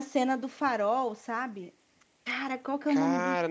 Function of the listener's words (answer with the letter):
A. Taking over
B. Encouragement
A